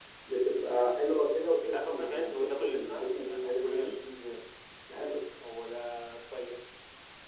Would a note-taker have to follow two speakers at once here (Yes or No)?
Yes